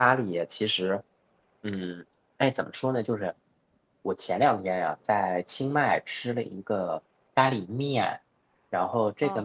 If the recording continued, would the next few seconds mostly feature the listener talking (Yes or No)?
No